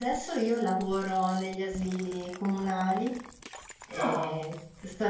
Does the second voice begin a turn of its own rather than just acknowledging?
No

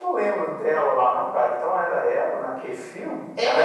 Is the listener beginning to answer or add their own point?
No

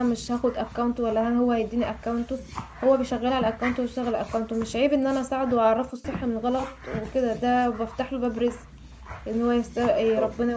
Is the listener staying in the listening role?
Yes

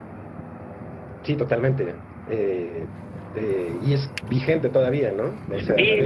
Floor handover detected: Yes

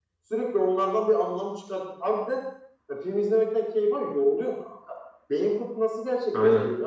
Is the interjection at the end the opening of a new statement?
Yes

